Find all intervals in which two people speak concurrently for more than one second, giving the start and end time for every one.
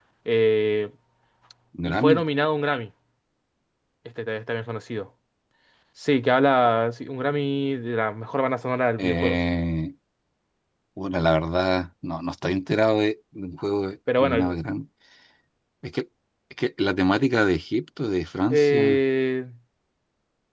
none

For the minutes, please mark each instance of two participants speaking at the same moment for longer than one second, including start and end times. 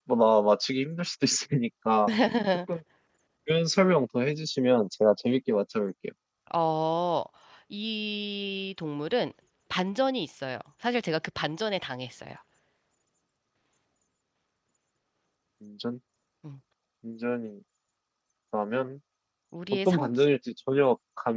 none

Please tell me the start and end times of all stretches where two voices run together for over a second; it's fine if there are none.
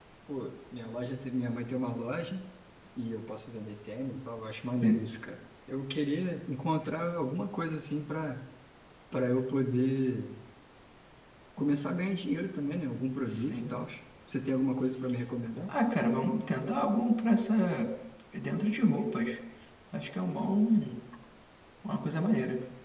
none

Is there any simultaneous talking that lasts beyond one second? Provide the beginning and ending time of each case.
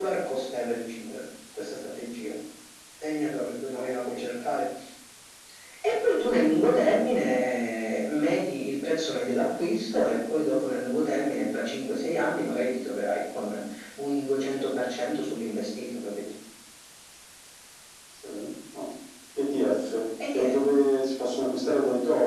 none

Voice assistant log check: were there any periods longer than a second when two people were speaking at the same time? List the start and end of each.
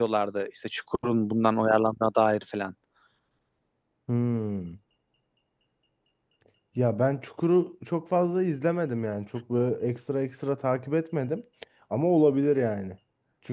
none

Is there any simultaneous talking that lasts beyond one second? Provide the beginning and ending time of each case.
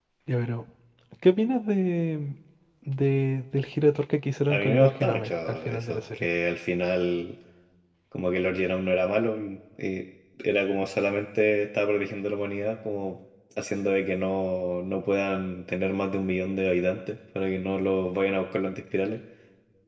4.5-6.3

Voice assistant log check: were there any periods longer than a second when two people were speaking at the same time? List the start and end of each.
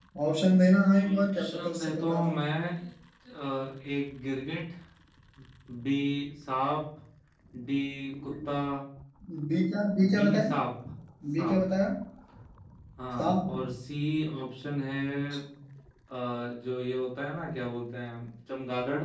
0.9-2.3

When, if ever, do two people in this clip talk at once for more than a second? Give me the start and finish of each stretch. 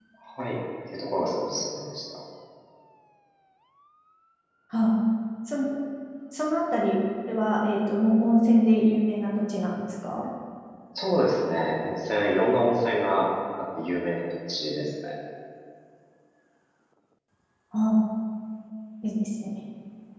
none

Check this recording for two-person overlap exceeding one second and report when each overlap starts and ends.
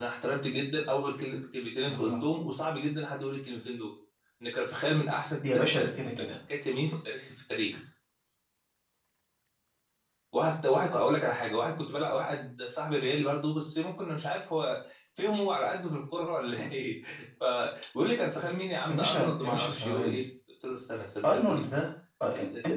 18.9-20.2

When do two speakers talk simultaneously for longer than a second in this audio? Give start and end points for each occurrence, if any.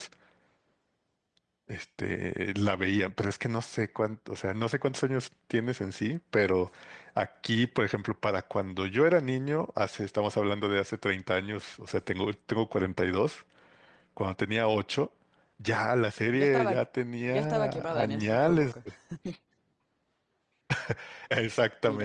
17.3-18.7

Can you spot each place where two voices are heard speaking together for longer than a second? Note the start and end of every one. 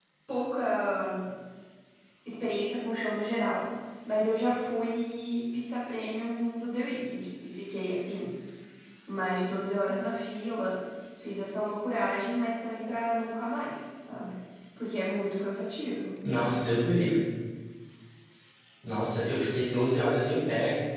none

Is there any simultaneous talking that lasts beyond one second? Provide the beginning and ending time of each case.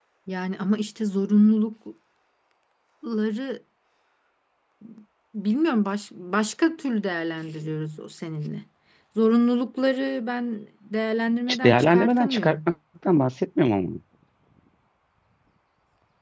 11.5-12.7

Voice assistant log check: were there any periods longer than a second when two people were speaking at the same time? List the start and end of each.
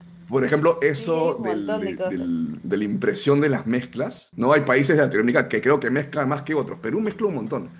1.0-2.3

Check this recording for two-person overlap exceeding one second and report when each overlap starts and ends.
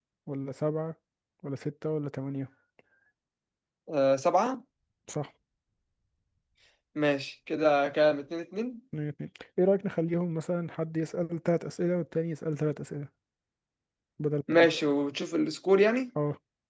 none

